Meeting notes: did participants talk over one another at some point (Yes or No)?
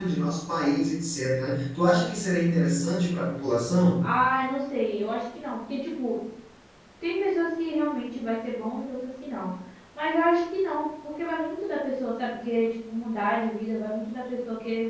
No